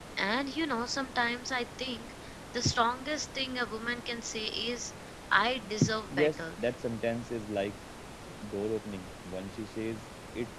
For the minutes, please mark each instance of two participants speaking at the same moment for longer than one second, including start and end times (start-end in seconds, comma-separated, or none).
none